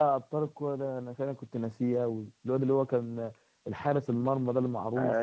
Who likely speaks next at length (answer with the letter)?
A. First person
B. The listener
B